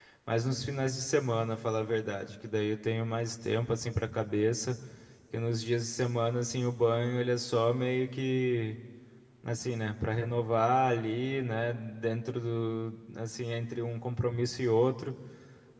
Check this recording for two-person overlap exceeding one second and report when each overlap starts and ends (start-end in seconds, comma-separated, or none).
none